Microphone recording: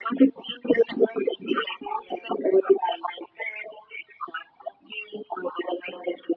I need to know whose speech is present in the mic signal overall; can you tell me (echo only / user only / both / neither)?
echo only